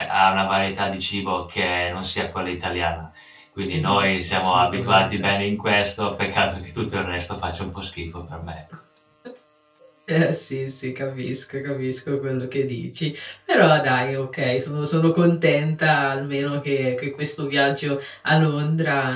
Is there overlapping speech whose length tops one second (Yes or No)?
Yes